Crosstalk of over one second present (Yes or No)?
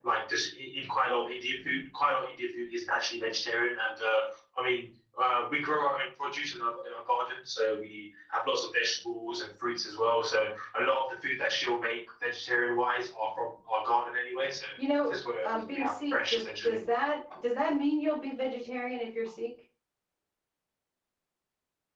Yes